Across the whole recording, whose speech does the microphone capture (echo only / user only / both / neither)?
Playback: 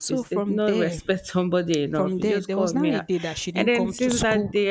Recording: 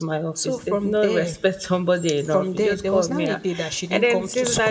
echo only